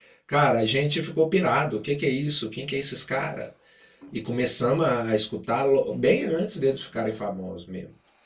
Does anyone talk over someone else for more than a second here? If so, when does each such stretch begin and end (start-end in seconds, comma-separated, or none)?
none